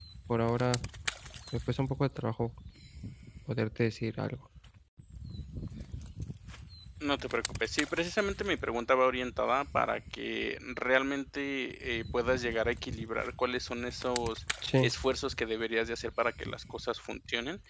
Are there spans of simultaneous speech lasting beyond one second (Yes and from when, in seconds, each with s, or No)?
No